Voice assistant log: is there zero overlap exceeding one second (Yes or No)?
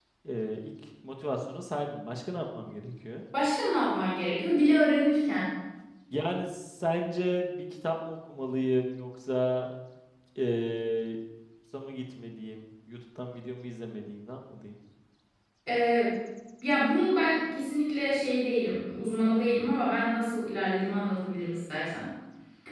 Yes